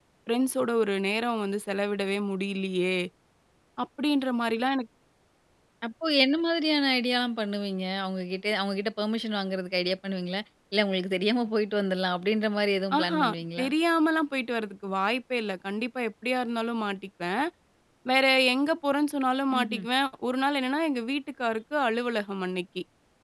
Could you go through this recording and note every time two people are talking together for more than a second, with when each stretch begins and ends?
none

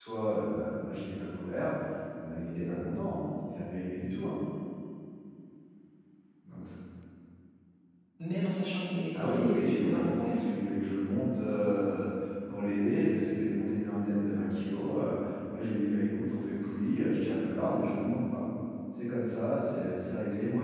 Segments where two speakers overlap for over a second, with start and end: 9.1-10.4

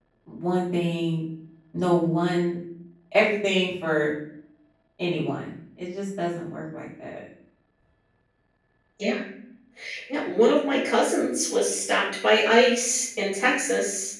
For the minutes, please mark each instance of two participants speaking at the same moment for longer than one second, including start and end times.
none

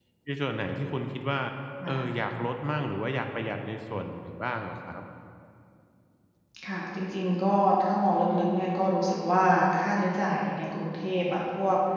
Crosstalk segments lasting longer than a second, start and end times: none

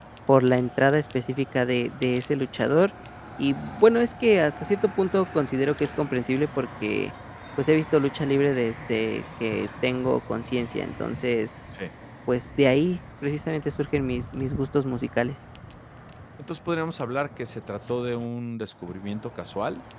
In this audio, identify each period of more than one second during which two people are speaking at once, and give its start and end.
none

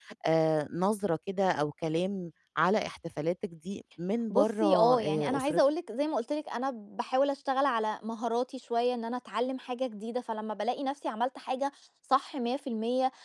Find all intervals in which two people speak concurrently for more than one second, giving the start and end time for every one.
4.3-5.6

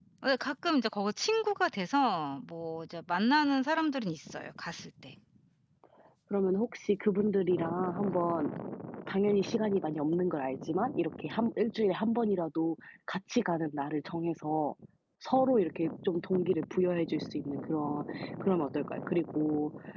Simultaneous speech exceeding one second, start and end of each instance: none

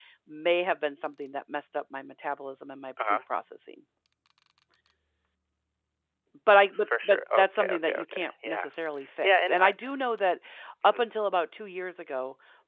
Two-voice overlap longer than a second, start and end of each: 6.9-8.7

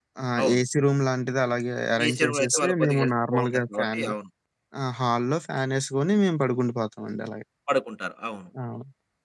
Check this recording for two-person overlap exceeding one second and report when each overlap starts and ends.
2.0-4.1

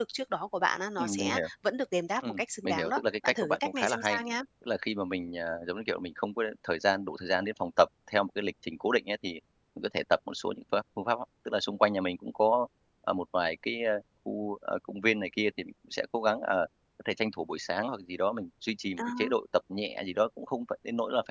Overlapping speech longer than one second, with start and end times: 2.2-4.2

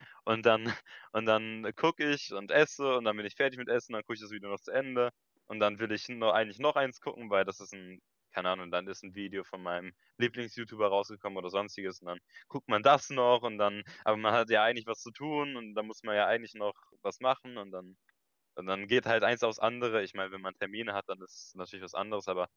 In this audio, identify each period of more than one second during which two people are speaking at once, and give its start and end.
none

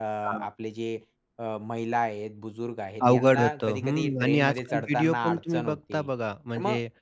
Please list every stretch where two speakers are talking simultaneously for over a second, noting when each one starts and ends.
3.0-6.1

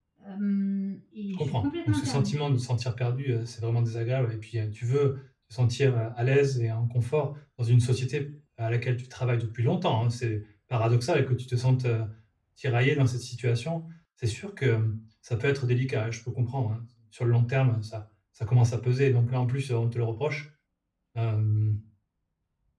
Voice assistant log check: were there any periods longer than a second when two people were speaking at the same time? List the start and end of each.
1.3-2.5

